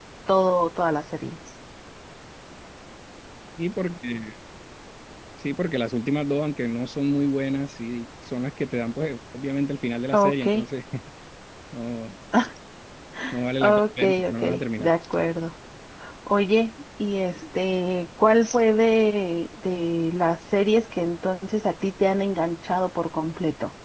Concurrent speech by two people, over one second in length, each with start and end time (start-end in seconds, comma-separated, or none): 13.6-14.9